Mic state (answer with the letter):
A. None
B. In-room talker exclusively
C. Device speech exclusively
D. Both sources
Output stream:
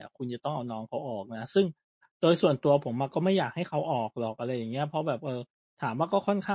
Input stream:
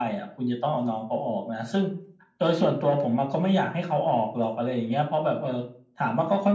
C